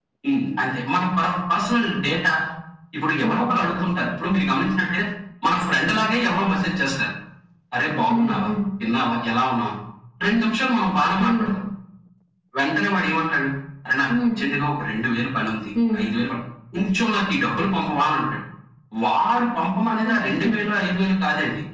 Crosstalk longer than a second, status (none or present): none